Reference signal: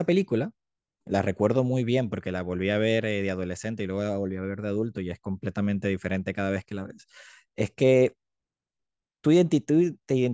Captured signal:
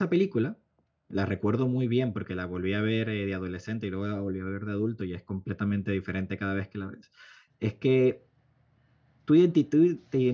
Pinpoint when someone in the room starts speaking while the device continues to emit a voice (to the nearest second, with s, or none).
none